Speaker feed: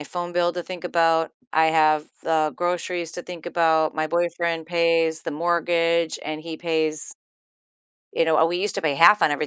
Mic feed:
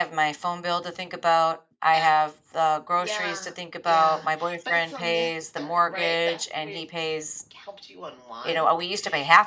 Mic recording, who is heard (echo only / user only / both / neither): both